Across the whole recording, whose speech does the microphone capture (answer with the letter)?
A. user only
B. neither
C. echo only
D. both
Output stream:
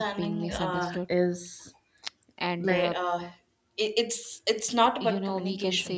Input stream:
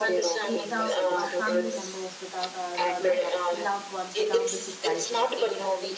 D